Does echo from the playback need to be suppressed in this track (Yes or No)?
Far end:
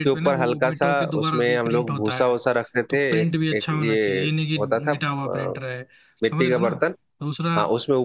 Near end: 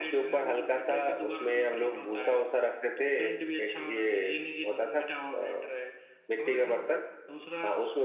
Yes